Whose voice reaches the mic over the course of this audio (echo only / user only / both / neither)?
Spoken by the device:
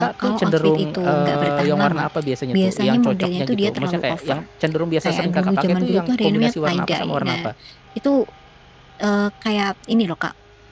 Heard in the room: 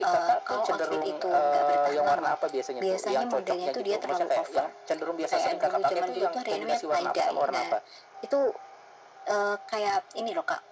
echo only